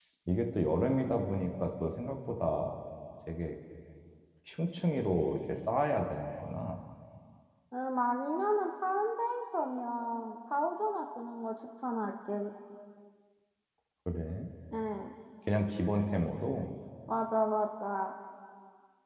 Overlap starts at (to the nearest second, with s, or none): none